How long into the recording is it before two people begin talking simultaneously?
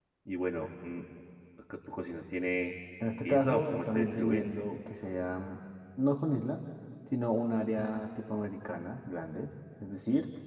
3 s

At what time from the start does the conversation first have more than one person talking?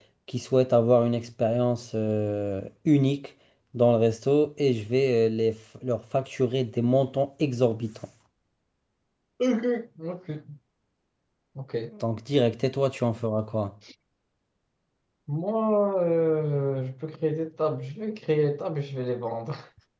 none

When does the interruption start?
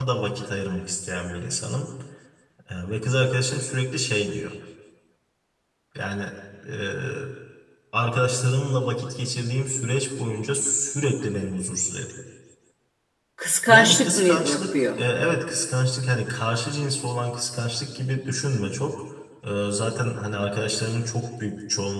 14 s

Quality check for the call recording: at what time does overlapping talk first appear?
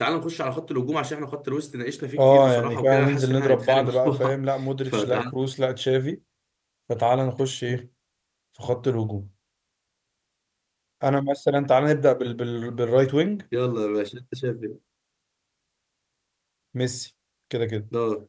2 s

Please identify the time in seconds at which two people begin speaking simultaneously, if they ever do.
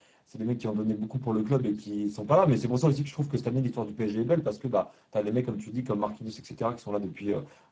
none

